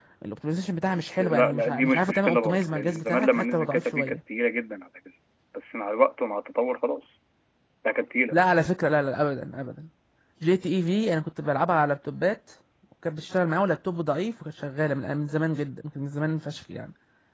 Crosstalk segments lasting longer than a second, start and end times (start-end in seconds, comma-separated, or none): 0.9-4.2